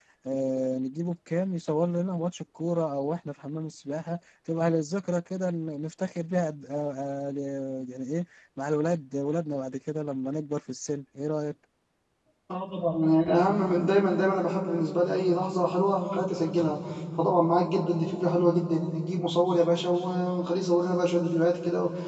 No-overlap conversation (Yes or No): Yes